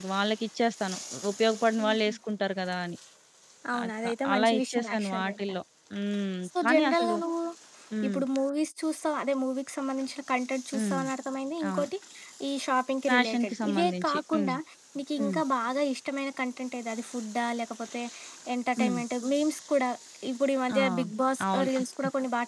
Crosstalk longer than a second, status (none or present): present